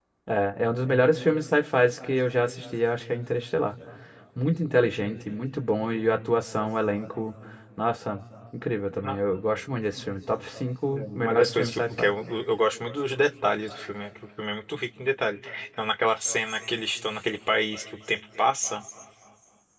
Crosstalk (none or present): present